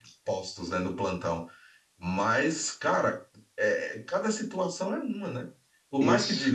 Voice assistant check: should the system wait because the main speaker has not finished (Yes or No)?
Yes